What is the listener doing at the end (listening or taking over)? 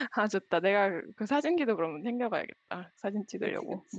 taking over